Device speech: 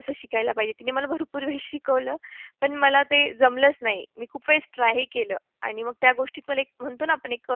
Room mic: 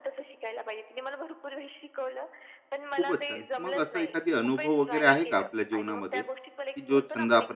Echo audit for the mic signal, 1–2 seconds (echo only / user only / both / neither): echo only